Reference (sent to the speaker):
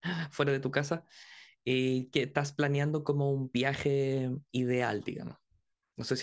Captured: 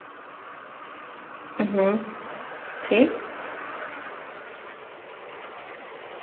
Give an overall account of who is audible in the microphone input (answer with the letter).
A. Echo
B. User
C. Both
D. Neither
B